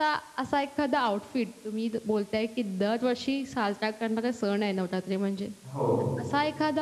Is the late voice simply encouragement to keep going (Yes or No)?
Yes